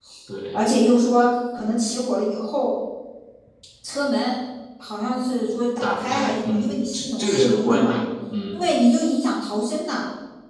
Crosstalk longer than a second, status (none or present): present